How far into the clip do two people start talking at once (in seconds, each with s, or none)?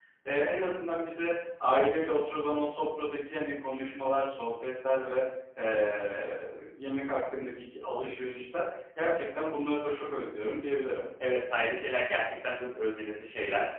none